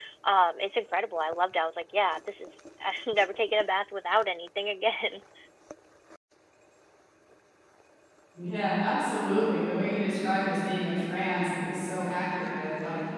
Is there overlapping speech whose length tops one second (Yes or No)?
No